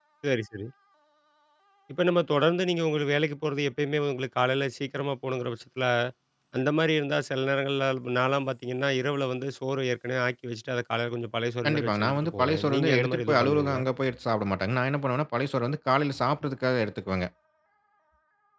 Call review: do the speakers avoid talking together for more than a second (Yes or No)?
No